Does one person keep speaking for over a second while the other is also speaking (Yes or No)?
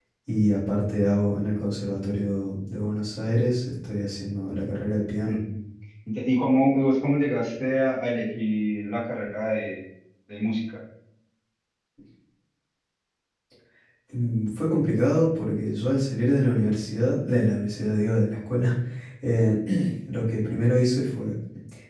No